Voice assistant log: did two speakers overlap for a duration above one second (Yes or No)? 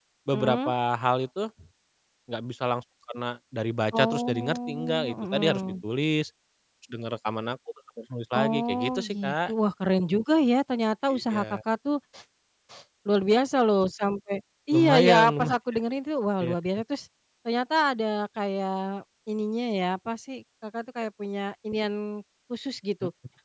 Yes